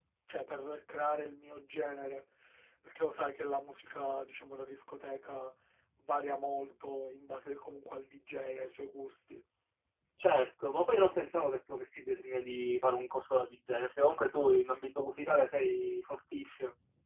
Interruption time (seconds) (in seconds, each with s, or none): none